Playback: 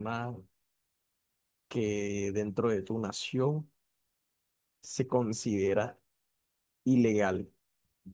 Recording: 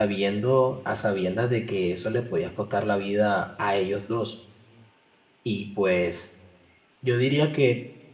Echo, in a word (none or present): none